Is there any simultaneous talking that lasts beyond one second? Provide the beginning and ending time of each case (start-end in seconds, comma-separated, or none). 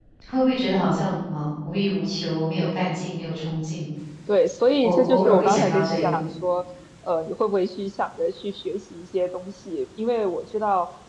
4.8-6.2